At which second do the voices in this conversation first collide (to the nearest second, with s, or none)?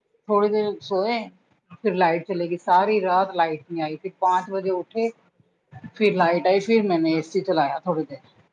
none